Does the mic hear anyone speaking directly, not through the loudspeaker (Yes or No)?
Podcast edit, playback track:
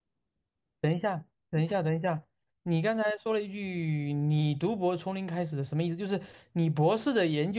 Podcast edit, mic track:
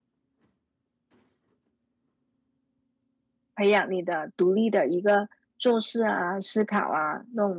Yes